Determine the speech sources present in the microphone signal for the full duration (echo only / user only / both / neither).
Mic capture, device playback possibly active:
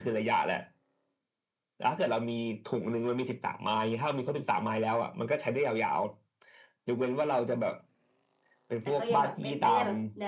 both